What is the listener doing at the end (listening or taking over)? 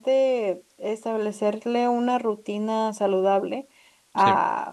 listening